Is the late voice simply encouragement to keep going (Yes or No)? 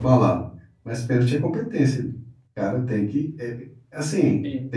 Yes